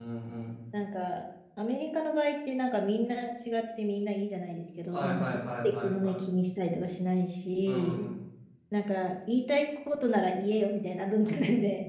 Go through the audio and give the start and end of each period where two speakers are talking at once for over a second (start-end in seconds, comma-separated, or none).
4.9-6.3